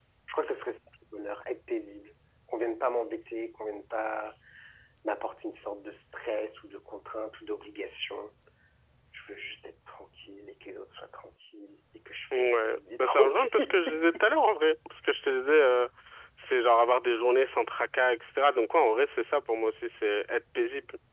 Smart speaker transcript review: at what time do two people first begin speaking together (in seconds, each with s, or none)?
12.3 s